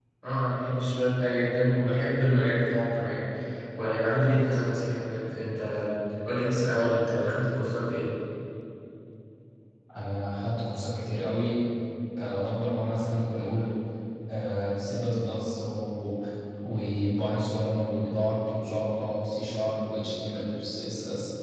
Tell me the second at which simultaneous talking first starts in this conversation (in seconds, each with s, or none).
none